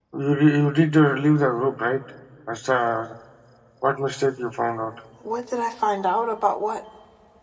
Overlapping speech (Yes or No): No